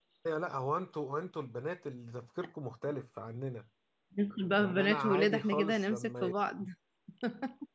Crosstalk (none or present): present